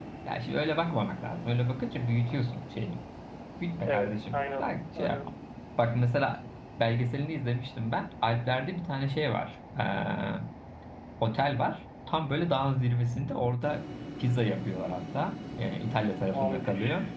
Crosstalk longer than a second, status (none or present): present